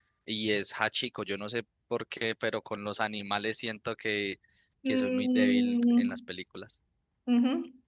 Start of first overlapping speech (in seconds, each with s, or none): 4.9 s